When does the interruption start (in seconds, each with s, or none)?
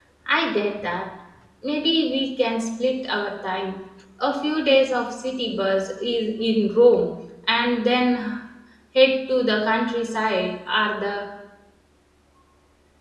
none